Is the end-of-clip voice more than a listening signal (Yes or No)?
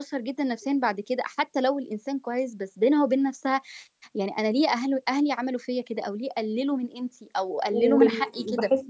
Yes